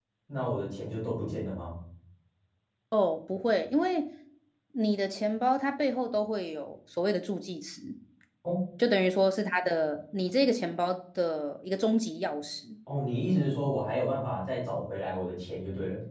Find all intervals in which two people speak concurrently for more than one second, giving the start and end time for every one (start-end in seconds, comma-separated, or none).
none